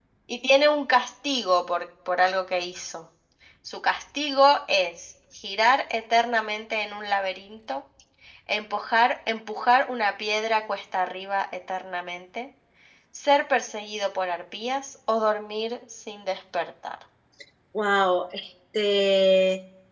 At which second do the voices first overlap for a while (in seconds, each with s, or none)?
none